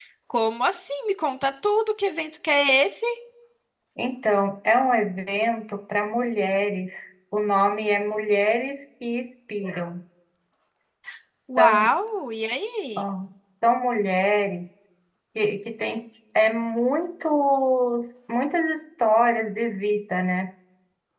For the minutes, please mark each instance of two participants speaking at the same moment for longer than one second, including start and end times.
none

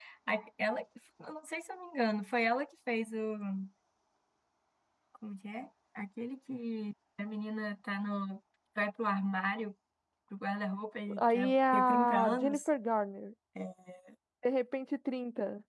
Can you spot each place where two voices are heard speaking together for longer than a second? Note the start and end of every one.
11.3-12.7

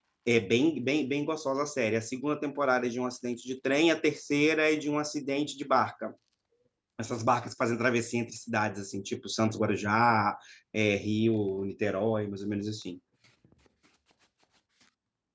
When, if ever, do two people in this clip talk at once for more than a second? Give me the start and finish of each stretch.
none

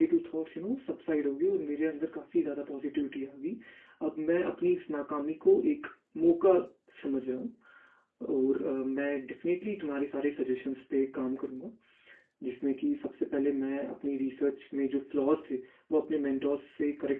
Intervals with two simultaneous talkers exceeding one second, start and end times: none

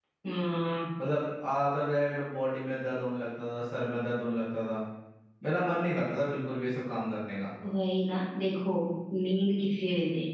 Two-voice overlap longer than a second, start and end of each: none

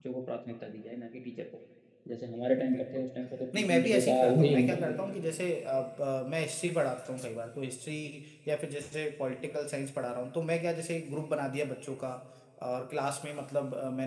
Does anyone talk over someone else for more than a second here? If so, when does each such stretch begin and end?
3.6-5.0

